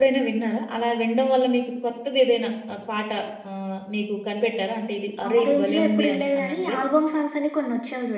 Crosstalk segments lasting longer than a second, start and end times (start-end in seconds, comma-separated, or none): 5.3-6.8